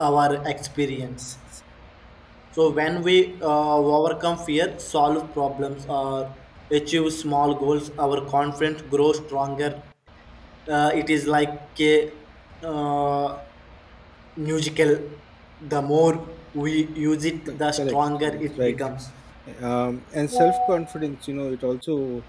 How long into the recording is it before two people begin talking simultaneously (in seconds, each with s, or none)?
17.5 s